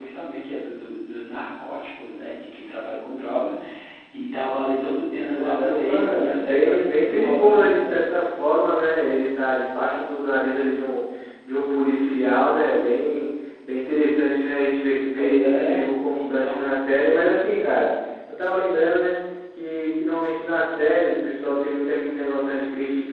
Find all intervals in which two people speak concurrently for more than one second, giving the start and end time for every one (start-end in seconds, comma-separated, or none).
5.2-8.0, 15.1-16.7